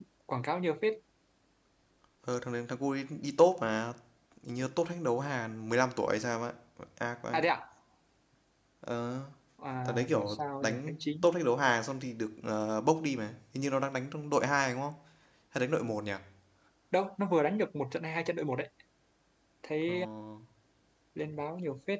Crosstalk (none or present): present